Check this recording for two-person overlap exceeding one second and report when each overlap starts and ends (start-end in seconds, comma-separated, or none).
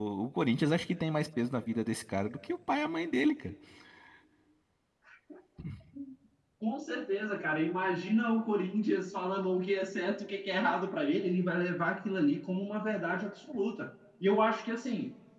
none